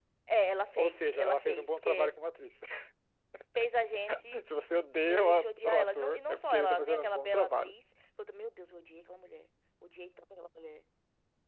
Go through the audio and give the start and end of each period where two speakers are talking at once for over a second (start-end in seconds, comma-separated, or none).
0.8-2.1, 5.1-7.7